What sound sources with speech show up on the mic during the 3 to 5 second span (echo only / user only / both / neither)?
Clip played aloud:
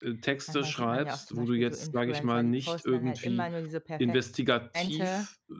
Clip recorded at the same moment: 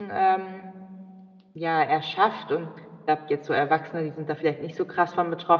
user only